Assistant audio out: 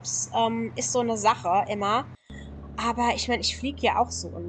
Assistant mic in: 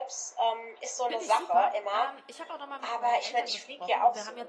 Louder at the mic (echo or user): echo